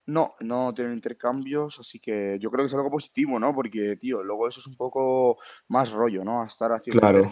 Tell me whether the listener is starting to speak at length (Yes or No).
No